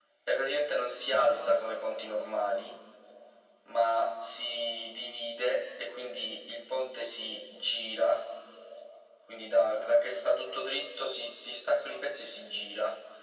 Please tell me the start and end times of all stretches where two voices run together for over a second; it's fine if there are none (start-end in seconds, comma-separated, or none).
none